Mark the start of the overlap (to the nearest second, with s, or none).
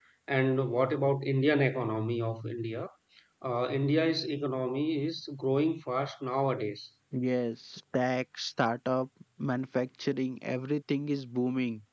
none